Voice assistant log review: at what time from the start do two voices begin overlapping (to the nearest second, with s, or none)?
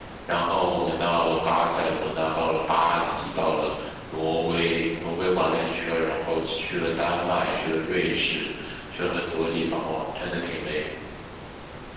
none